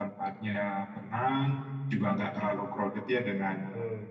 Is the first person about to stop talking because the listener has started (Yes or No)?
No